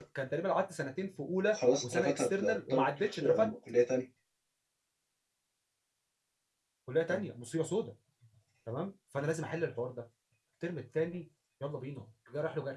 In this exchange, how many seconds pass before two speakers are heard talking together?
1.5 s

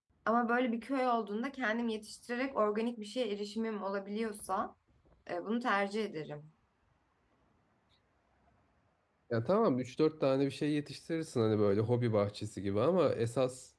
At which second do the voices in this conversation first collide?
none

